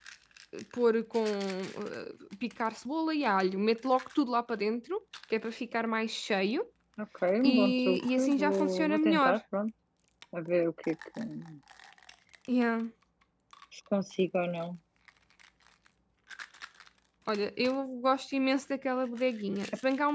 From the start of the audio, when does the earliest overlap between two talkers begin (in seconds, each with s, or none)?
7.4 s